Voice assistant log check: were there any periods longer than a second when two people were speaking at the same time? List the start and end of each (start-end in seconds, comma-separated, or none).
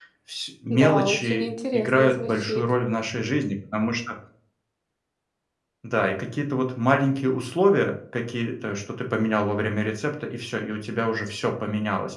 0.7-2.6